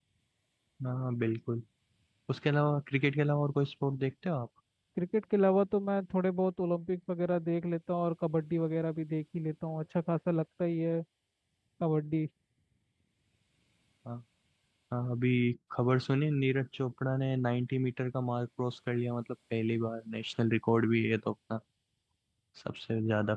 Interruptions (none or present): none